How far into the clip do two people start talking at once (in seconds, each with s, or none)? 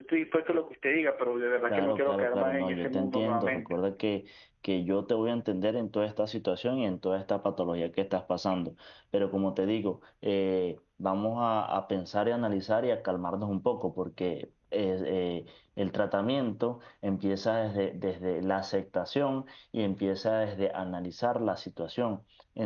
1.7 s